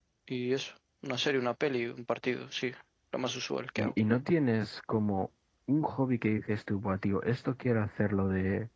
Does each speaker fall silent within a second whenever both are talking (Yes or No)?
Yes